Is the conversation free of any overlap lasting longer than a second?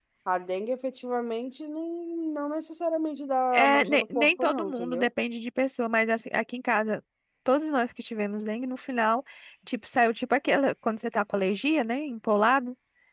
No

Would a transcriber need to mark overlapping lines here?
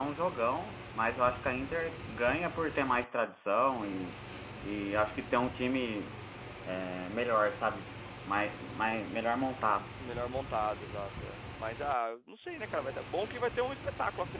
No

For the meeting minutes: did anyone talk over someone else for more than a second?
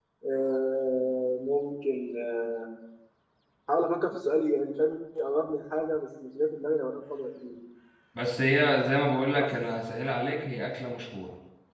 No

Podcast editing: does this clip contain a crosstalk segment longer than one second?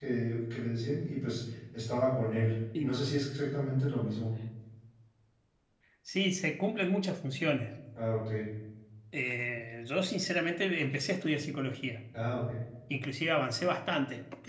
No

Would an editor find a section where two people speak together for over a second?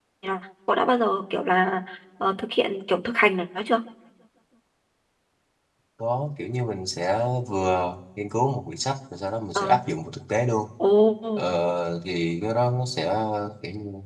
No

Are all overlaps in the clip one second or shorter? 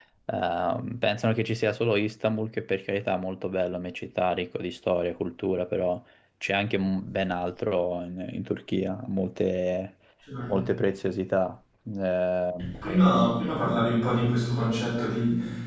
Yes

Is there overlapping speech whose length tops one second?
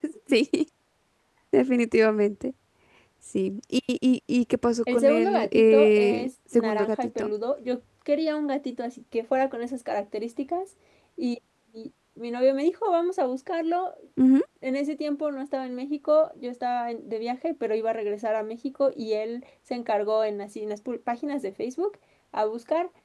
Yes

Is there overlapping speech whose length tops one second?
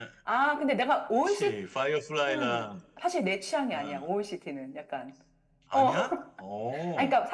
No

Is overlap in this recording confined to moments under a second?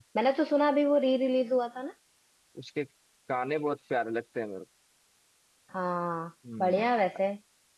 Yes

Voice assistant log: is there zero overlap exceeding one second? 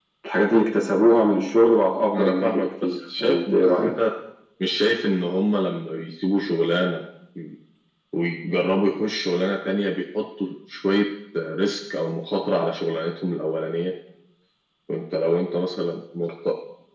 No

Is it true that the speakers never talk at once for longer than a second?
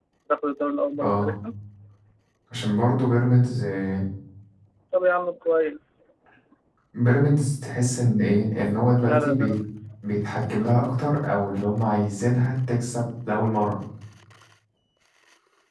Yes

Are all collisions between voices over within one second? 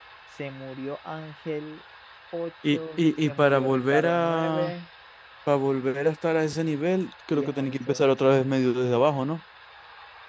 No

